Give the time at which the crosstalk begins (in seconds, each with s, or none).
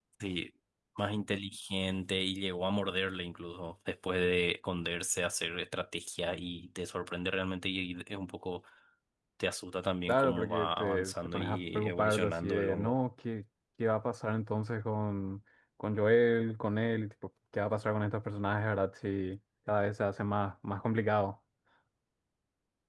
10.1 s